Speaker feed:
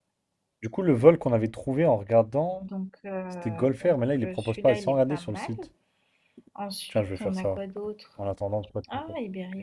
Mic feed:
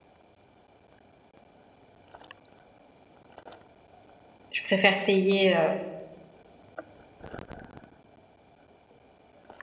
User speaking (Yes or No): Yes